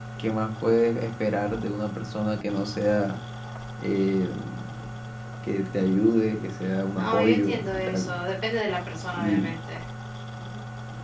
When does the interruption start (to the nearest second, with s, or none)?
7 s